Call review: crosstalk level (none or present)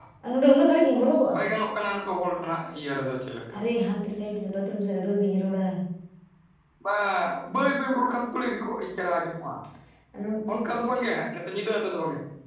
none